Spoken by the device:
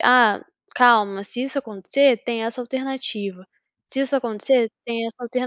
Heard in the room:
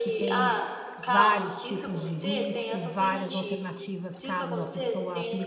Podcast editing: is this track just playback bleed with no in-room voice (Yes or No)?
No